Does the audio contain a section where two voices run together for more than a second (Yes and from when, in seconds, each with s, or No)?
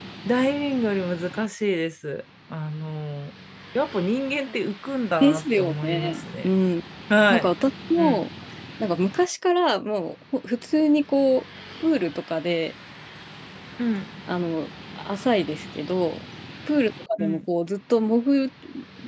Yes, from 5.2 s